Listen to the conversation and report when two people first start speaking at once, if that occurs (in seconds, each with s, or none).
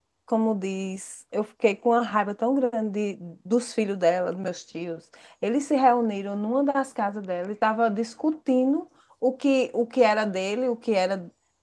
none